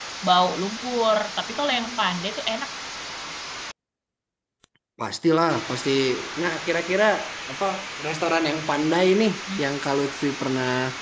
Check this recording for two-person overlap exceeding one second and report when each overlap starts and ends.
none

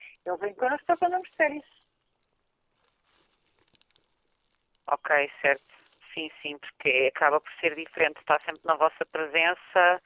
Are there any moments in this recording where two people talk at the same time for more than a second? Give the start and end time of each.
none

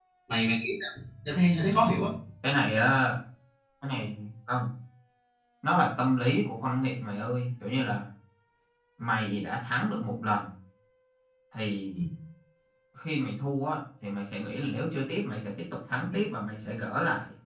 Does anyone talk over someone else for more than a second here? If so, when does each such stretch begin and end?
none

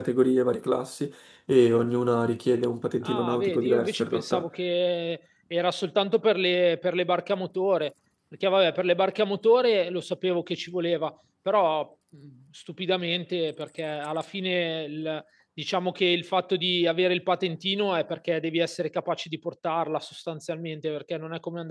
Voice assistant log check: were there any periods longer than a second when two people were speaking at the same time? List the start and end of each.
3.0-4.5

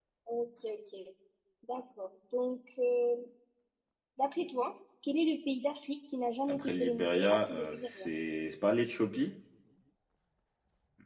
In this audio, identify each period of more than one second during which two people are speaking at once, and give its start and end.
6.5-8.1

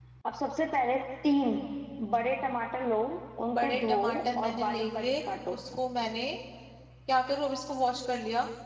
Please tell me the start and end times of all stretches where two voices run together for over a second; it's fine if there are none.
3.5-5.1

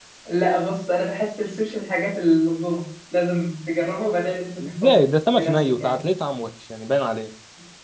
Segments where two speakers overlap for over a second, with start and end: 4.6-6.0

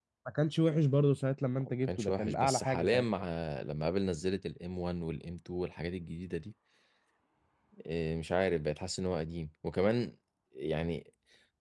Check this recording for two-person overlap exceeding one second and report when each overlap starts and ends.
1.6-3.0

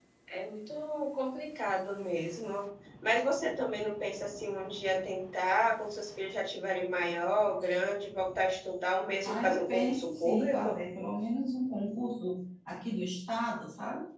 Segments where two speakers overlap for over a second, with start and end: 9.2-10.8

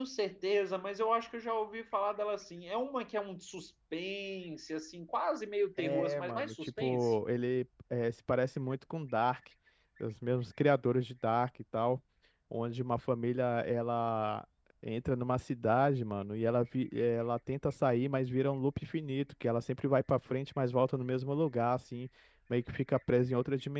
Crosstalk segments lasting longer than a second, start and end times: 5.8-7.1

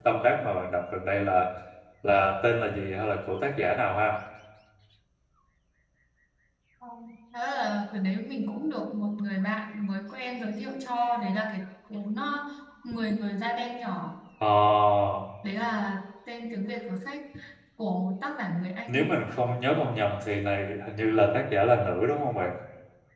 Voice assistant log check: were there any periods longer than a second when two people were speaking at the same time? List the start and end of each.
none

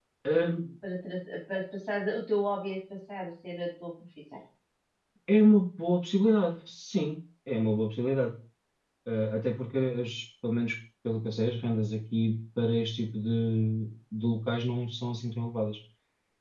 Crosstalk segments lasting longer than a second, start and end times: none

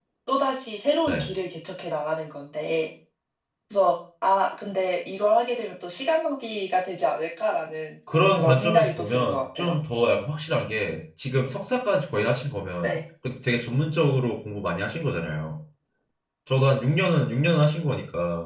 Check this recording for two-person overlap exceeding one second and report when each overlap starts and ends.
8.1-9.7

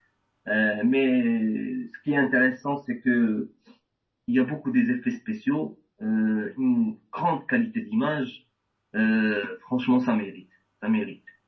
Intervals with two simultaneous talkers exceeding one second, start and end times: none

